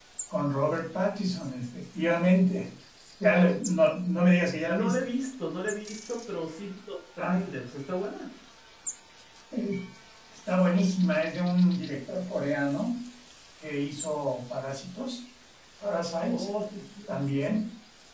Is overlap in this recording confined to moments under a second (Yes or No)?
Yes